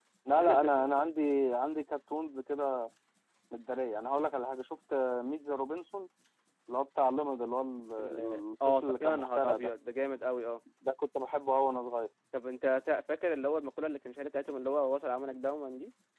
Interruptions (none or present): present